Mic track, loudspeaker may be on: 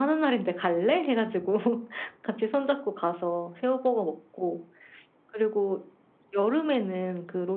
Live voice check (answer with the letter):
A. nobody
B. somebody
A